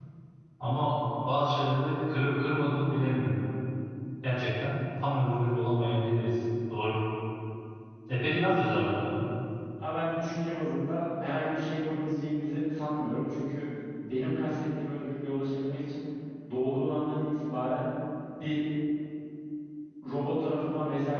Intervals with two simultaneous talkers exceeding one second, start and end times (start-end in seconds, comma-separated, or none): none